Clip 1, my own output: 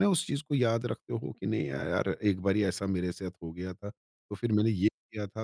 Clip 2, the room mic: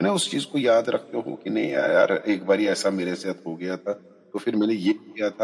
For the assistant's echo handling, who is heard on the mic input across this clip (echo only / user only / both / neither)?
echo only